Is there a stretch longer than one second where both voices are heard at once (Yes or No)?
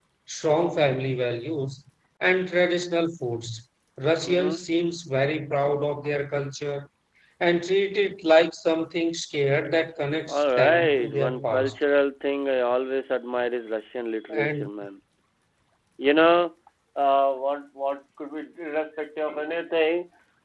Yes